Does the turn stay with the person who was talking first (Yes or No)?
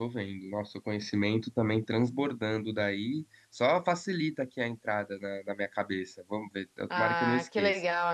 No